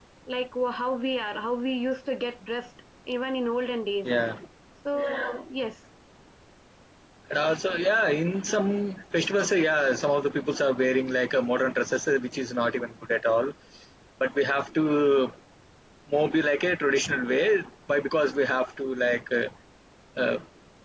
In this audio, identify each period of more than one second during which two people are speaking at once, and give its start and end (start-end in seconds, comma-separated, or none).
none